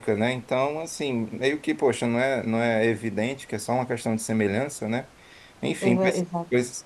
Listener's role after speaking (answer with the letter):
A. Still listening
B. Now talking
A